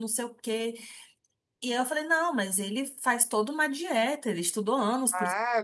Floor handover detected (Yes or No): Yes